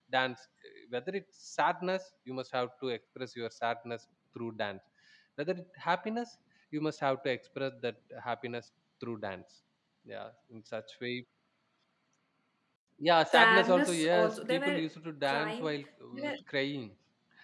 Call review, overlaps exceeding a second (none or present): present